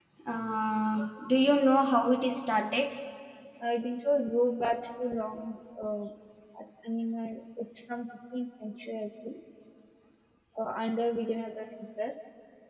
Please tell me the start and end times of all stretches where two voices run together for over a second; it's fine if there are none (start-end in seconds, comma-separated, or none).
none